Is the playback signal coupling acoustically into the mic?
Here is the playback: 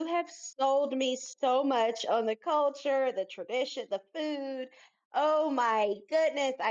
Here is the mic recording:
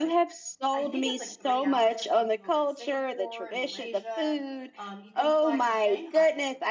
Yes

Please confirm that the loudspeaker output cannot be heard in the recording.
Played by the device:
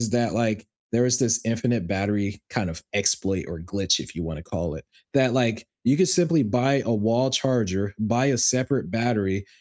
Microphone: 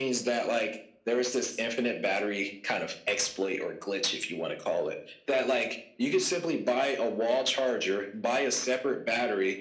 No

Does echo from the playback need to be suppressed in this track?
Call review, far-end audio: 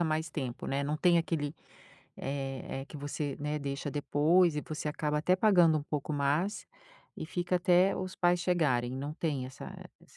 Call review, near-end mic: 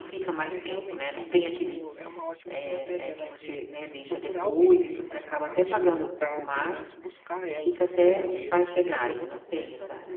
Yes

